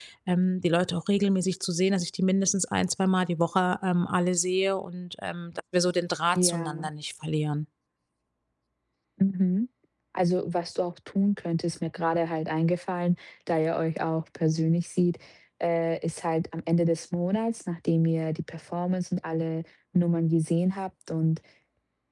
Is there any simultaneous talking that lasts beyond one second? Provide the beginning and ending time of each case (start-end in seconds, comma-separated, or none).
none